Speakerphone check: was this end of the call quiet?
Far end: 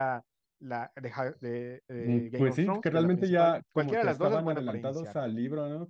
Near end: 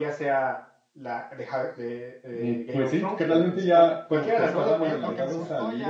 No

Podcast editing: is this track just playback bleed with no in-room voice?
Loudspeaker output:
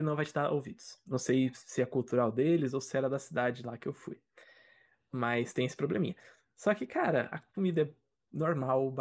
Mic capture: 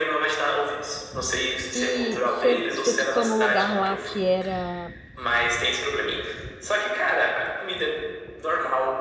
No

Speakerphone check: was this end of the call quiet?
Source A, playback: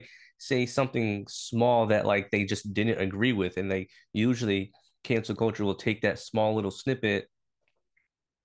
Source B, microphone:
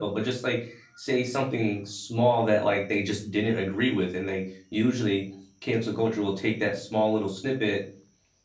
Yes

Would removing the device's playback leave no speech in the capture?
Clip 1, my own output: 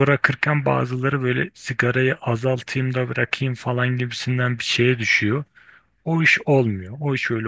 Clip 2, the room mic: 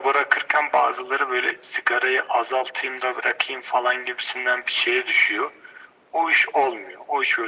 Yes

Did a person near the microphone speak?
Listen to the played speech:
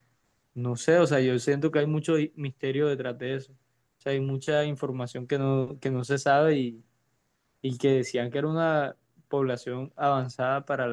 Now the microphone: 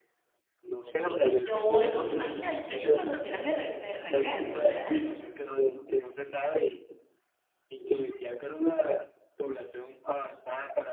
Yes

